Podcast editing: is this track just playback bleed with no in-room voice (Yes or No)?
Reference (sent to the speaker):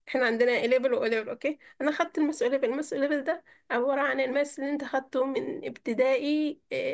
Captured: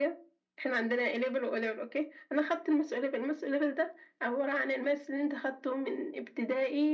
Yes